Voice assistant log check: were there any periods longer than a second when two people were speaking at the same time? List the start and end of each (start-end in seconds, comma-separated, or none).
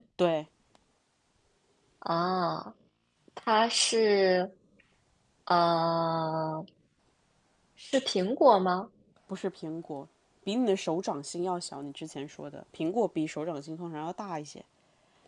none